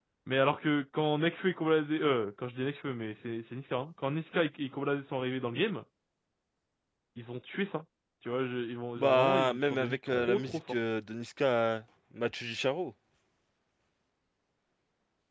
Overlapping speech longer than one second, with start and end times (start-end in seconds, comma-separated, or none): 9.0-10.6